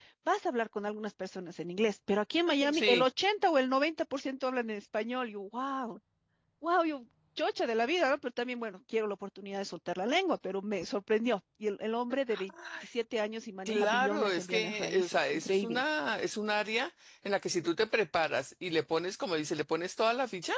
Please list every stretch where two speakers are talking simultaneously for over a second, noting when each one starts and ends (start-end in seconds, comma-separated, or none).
13.7-15.8